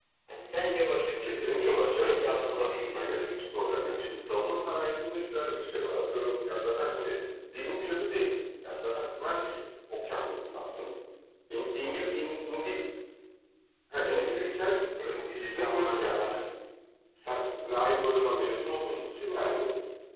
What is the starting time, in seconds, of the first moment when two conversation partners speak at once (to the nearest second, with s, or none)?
1 s